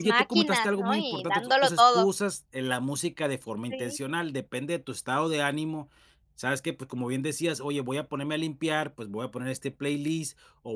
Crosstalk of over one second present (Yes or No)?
Yes